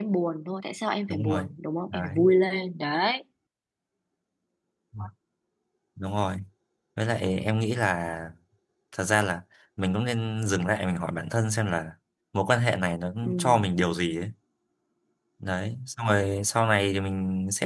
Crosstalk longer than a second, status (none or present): none